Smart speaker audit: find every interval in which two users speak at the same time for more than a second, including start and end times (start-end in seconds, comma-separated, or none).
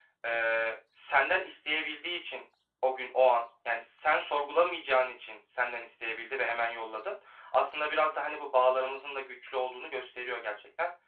none